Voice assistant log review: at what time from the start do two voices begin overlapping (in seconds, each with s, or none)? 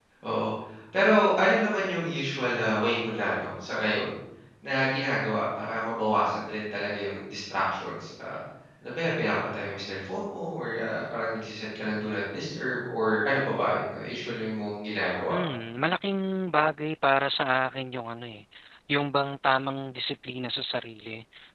none